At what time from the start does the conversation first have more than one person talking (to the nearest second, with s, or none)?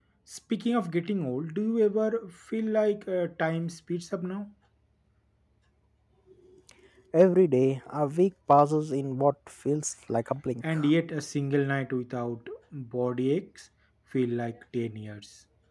none